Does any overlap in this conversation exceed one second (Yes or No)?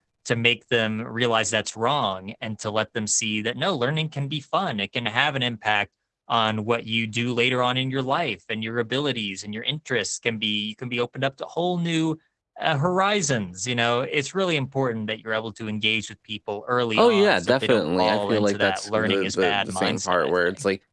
Yes